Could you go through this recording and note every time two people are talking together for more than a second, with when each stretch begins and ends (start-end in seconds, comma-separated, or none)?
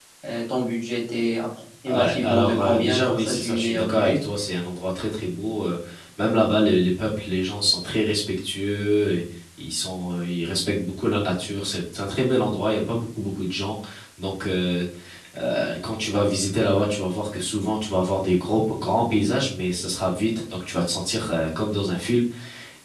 1.9-4.2